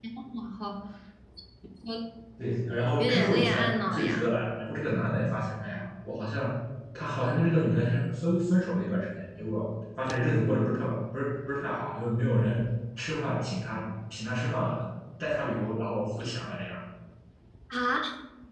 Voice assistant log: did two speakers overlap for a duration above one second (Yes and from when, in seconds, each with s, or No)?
Yes, from 3.0 s